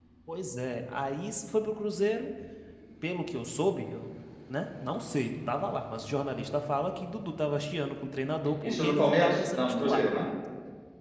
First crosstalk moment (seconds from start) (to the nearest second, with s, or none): 9 s